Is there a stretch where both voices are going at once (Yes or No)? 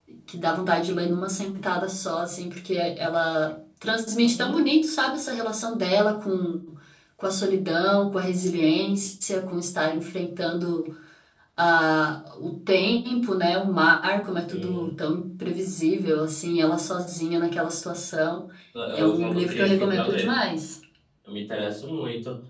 Yes